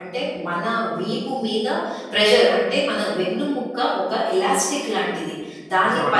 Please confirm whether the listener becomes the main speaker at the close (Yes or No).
No